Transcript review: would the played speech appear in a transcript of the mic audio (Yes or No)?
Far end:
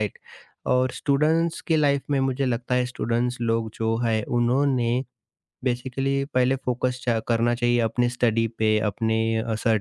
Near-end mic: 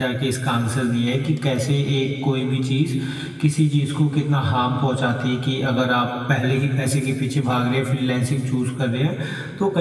No